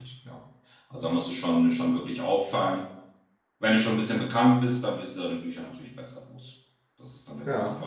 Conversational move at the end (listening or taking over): listening